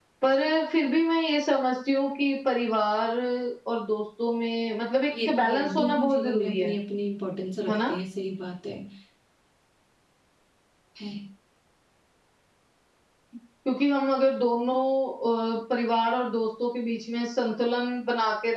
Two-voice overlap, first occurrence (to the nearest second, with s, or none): 5 s